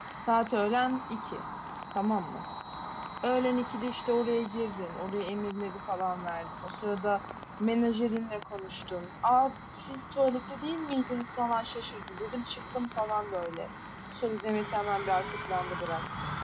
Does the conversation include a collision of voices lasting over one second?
No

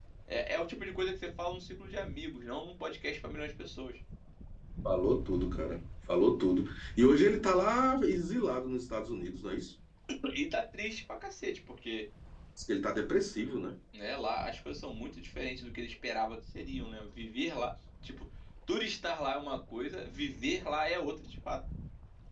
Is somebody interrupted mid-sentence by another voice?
No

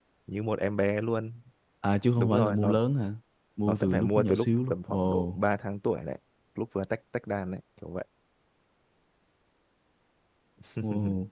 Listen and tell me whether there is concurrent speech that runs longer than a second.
Yes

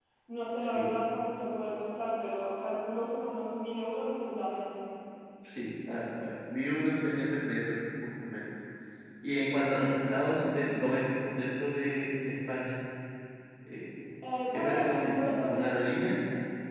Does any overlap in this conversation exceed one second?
Yes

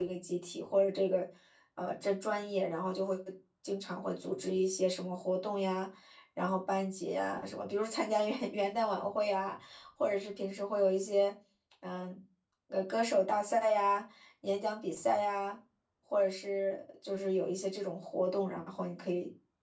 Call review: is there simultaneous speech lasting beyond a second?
No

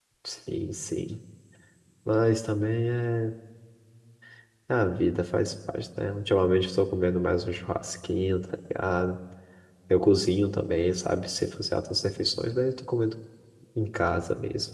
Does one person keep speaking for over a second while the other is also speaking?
No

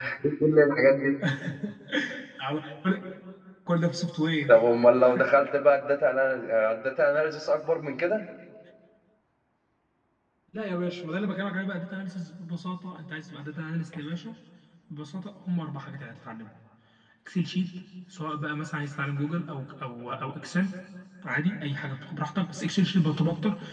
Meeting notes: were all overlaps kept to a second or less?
Yes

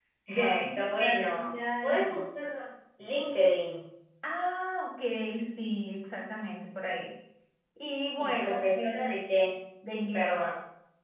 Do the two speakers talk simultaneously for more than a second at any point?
Yes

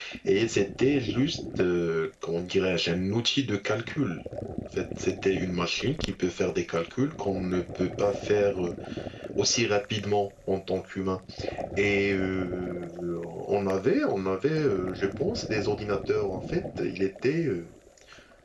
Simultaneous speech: No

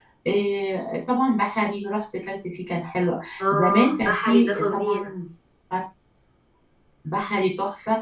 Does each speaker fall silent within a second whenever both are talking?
No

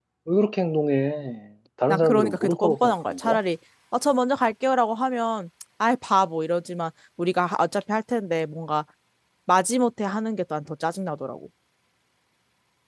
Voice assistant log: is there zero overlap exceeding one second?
No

